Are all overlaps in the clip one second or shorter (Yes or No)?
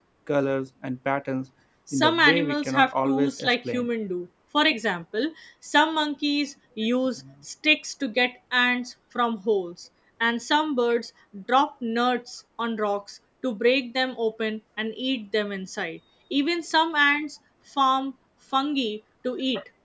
No